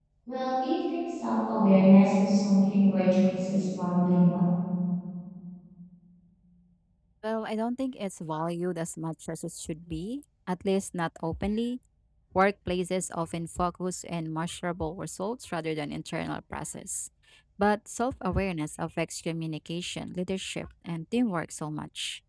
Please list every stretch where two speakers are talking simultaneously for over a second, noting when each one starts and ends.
none

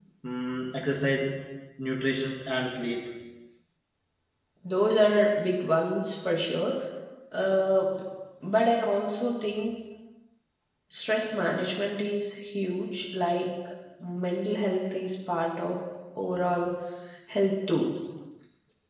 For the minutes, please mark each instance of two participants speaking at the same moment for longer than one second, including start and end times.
none

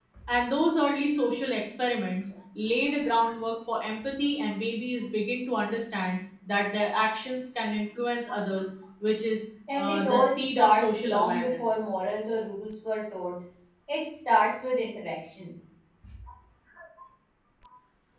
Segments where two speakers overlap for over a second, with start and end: 9.8-11.8

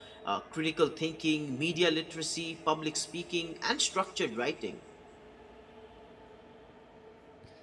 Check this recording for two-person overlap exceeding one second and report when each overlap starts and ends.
none

